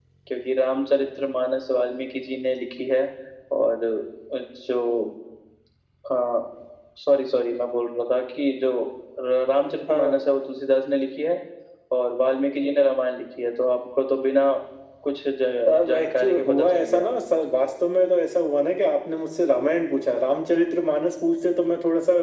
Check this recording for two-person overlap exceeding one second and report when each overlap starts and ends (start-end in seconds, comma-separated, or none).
15.7-17.0